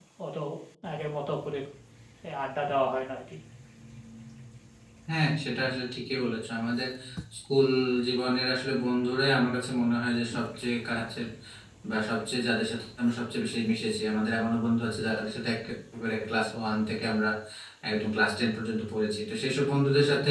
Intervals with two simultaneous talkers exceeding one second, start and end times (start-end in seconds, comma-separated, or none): none